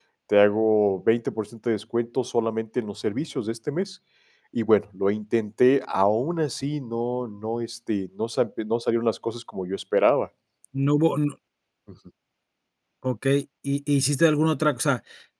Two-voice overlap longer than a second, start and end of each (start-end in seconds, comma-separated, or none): none